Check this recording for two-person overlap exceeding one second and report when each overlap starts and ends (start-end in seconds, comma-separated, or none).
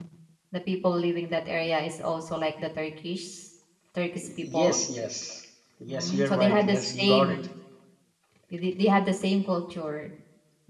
5.9-7.4